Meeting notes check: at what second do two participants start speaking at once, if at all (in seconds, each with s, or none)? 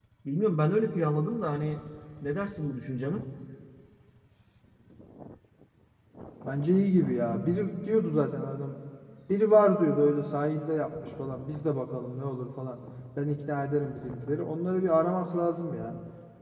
none